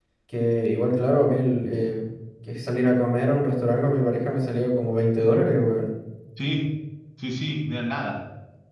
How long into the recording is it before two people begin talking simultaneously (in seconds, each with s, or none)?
none